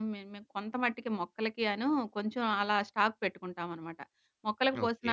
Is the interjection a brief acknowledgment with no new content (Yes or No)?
Yes